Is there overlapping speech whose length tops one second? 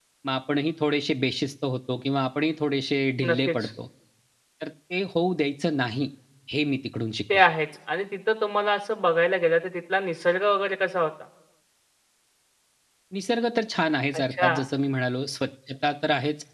No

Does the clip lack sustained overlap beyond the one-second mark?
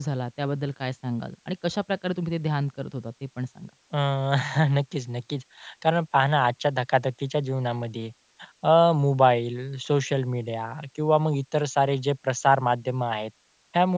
Yes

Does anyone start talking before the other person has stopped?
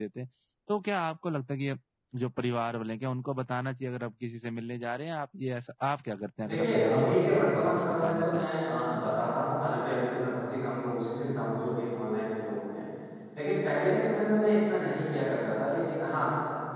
Yes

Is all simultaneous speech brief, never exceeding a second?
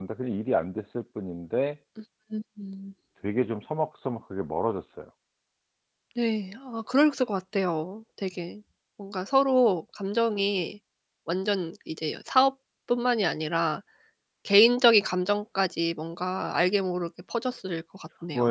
Yes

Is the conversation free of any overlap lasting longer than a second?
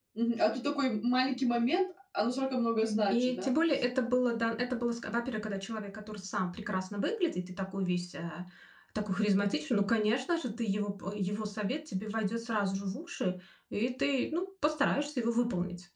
Yes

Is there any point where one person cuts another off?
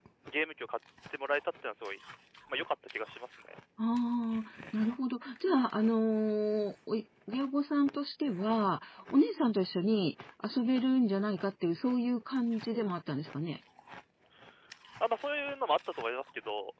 No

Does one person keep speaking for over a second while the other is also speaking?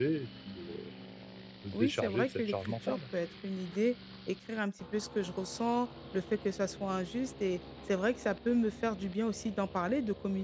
Yes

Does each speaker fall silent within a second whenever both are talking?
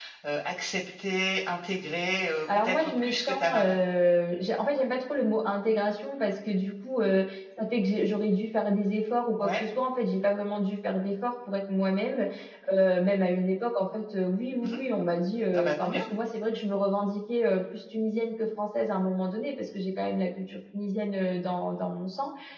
No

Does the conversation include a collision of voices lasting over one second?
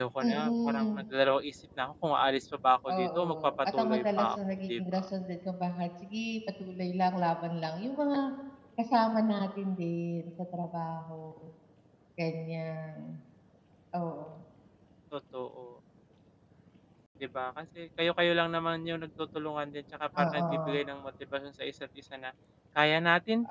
Yes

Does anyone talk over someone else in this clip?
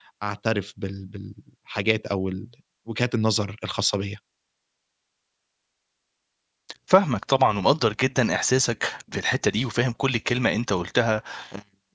No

